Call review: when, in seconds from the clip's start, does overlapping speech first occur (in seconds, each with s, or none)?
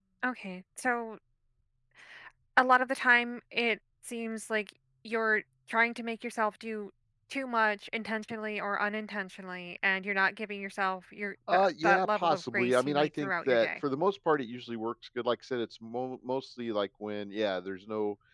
11.5 s